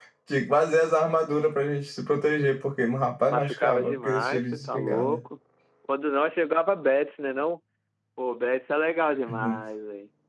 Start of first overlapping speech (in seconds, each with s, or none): 3.3 s